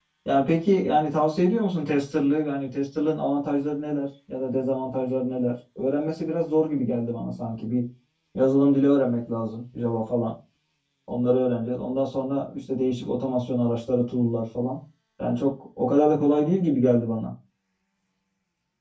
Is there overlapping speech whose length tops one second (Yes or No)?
No